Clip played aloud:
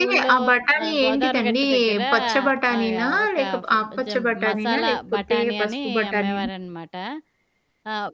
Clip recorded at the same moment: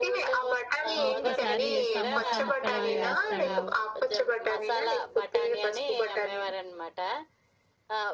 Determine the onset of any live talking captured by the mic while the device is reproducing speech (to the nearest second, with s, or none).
1 s